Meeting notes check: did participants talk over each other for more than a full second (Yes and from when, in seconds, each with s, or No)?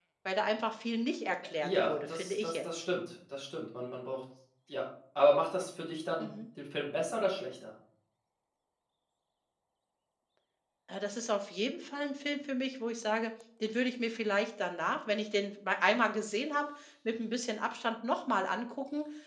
Yes, from 1.6 s